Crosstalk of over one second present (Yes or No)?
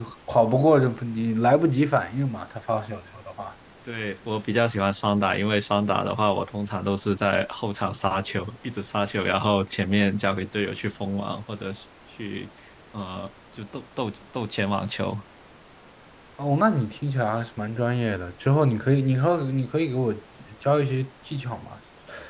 No